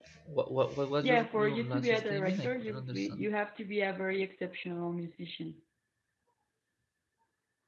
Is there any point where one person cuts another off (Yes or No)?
Yes